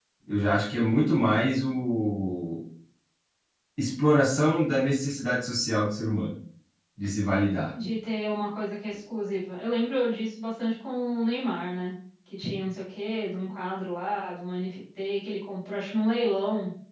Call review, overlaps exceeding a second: none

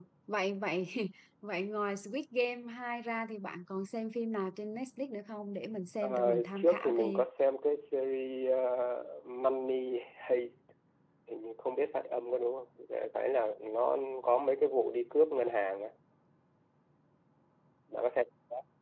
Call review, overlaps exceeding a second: present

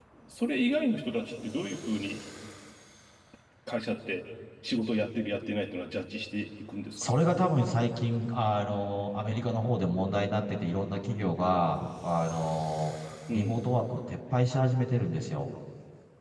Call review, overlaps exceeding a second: none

